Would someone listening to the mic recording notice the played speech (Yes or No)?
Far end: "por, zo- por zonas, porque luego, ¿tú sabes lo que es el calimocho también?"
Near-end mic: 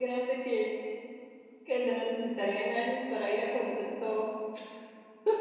No